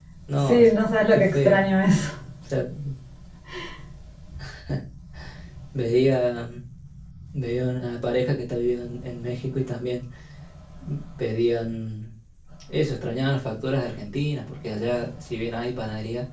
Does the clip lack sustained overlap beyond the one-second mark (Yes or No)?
Yes